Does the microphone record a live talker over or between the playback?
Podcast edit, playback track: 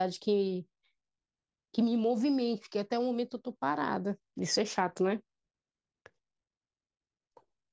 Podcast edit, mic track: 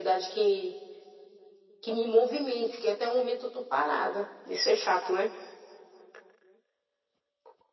No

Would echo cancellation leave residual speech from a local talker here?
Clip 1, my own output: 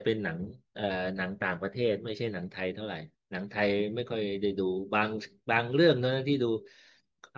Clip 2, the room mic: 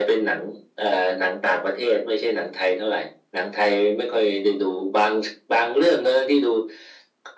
No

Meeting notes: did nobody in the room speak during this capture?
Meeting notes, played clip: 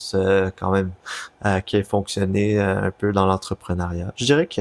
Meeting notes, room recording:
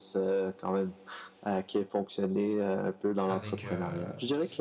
No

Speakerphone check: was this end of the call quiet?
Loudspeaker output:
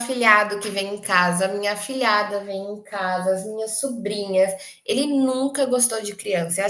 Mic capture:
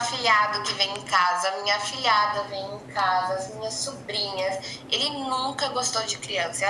Yes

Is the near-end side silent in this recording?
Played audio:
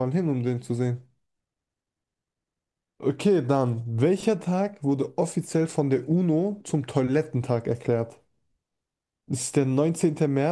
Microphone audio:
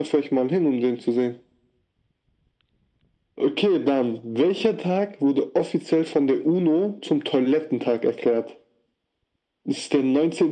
Yes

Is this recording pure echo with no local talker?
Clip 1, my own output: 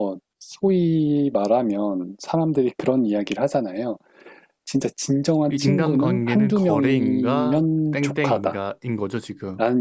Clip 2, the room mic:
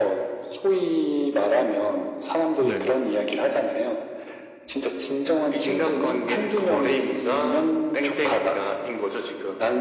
No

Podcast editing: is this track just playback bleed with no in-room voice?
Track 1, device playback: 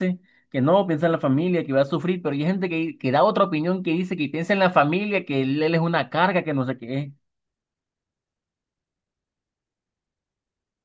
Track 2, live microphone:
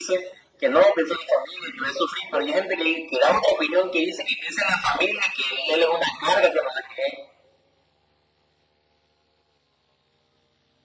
Yes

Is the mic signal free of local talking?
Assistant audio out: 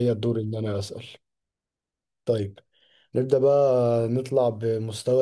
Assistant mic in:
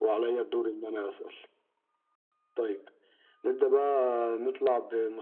Yes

